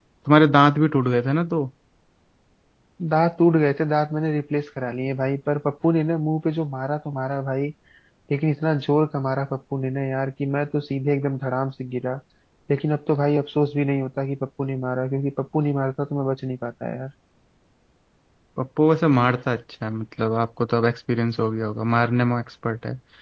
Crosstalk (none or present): none